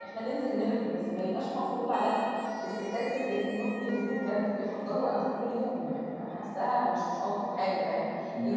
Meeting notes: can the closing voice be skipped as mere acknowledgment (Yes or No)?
Yes